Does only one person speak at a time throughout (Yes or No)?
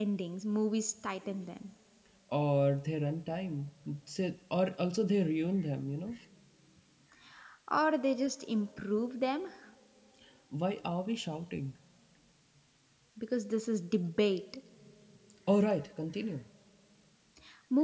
Yes